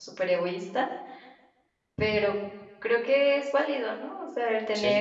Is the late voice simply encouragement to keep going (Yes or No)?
Yes